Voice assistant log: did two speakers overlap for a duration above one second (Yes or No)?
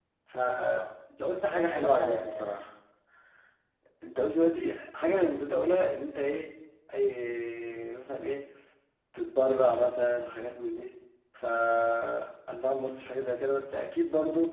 Yes